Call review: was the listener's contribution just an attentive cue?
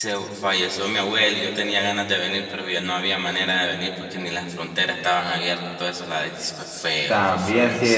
No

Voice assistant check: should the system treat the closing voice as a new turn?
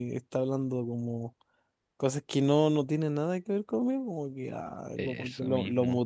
No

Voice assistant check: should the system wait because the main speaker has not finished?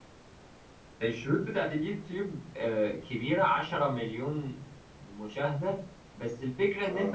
Yes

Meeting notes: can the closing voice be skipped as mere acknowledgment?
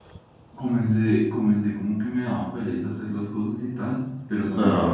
Yes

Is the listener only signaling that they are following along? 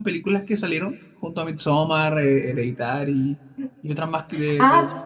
No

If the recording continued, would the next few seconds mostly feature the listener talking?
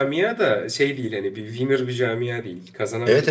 Yes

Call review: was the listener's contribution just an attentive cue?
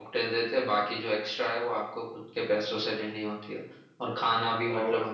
Yes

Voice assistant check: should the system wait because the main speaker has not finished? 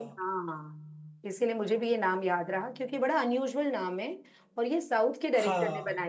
Yes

